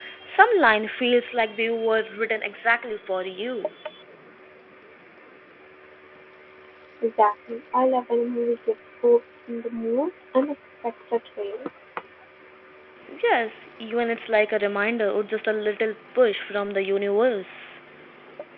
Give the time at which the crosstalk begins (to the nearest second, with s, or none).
none